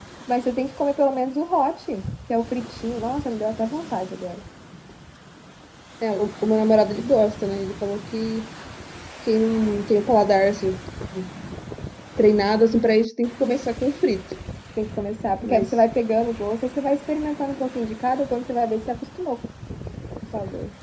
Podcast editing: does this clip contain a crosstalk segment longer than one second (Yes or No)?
No